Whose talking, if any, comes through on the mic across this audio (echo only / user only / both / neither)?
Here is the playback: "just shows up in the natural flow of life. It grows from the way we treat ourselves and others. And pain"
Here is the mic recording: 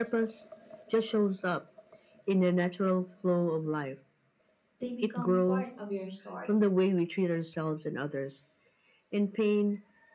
both